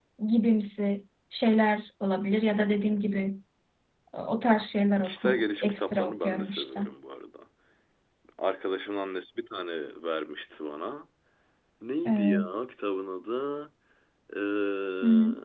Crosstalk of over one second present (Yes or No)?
Yes